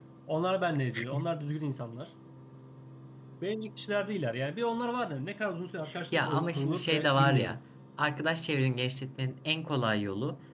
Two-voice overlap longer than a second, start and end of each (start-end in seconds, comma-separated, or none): 6.2-7.6